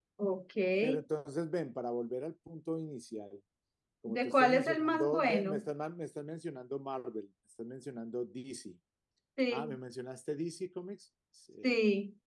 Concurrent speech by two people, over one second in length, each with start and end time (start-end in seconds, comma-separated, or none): 4.1-5.7